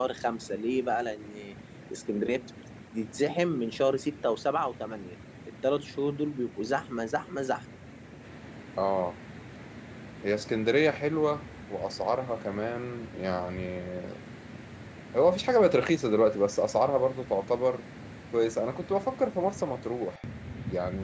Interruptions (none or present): none